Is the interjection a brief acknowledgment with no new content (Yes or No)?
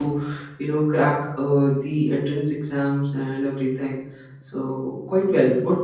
Yes